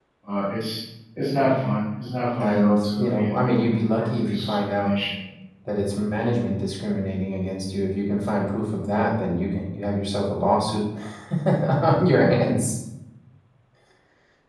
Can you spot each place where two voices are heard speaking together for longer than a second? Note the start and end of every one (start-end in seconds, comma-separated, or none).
2.4-4.9